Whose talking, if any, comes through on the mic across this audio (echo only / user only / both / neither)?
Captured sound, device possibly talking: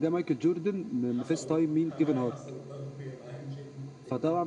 both